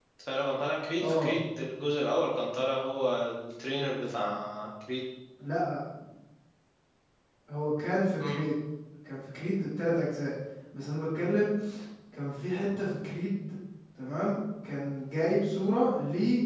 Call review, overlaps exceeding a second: none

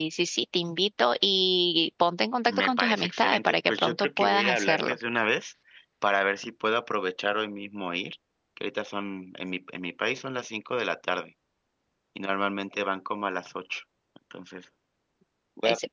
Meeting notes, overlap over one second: present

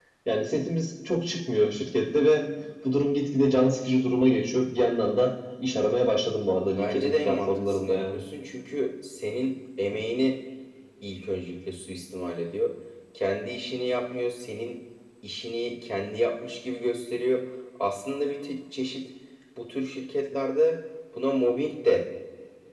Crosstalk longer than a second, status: present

